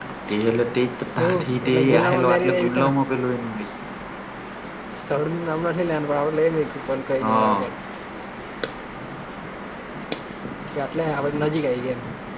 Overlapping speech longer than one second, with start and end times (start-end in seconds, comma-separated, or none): 1.2-2.9